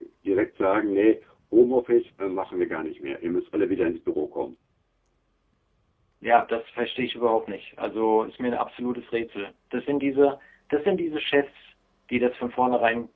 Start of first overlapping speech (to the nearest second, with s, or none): none